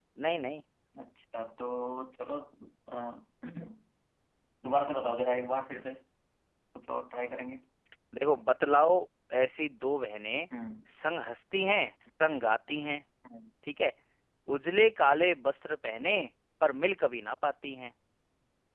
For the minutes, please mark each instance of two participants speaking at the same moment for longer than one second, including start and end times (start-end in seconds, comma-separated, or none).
none